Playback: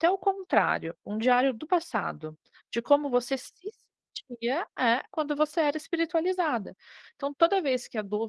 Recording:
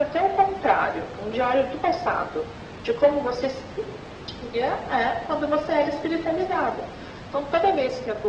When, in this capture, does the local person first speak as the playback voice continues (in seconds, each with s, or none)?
none